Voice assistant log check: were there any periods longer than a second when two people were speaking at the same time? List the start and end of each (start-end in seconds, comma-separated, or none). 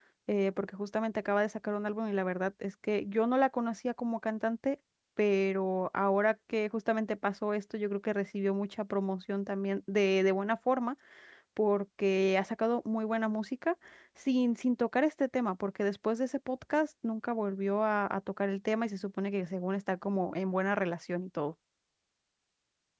none